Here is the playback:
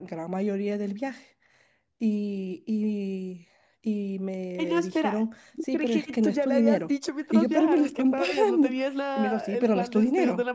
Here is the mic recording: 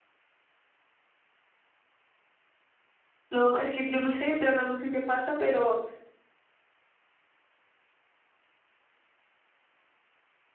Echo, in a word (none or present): none